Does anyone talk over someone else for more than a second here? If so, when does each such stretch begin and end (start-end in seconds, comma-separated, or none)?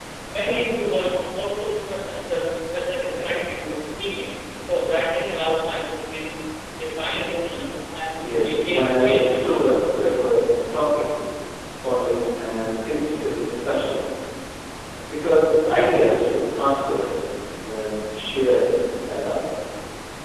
8.2-9.4